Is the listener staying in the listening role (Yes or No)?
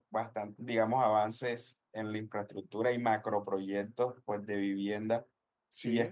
Yes